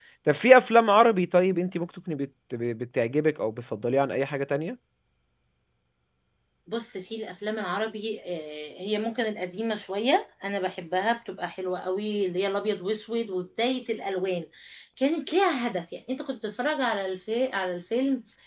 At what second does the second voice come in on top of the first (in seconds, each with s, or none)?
none